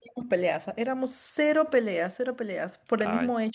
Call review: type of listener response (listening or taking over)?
listening